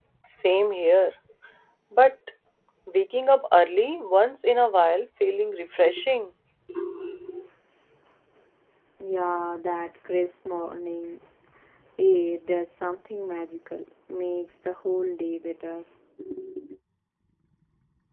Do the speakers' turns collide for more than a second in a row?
No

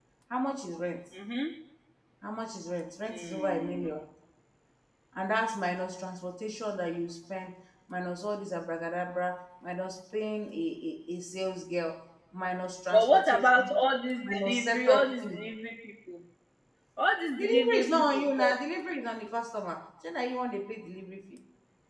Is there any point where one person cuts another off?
Yes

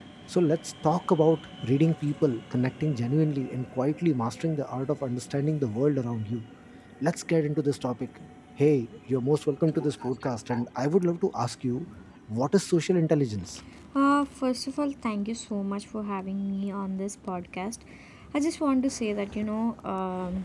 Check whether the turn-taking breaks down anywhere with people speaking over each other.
No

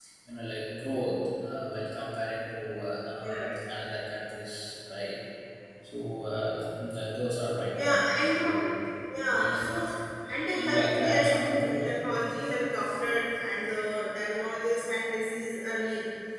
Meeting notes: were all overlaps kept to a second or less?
No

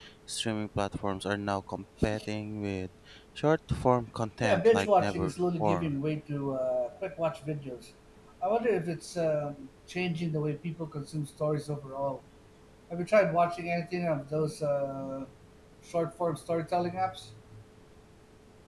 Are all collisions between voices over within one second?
No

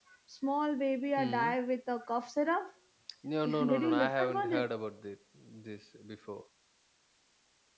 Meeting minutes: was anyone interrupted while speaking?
Yes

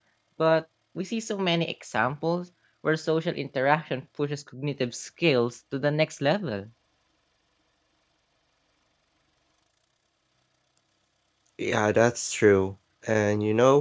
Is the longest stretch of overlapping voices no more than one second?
Yes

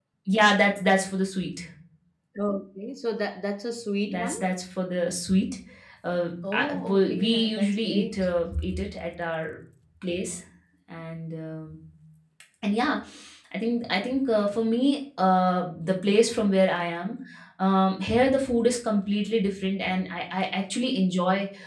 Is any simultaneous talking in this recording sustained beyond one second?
Yes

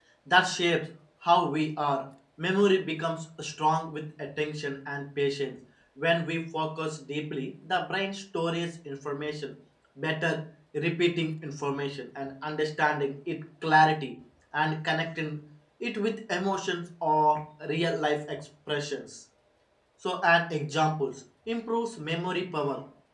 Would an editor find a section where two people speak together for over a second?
No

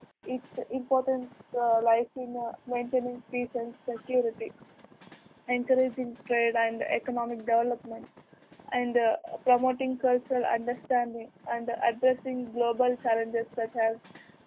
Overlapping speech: No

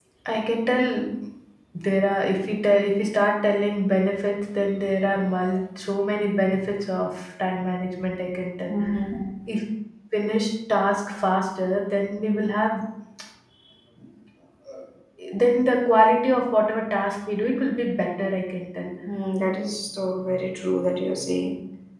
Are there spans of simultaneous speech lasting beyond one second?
No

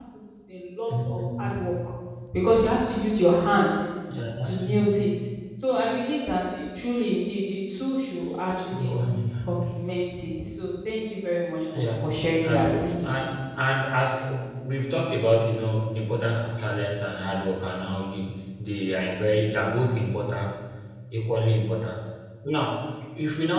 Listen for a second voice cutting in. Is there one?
Yes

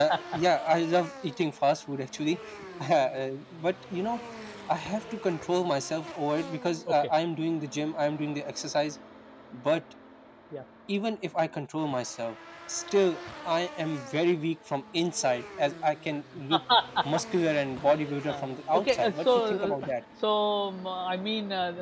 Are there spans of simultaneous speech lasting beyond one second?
Yes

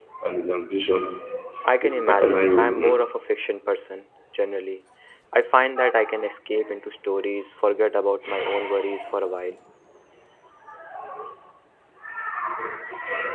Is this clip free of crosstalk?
No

